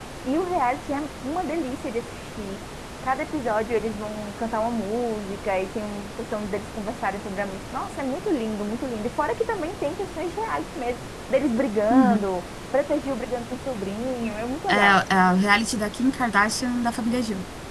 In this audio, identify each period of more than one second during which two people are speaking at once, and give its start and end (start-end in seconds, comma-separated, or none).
none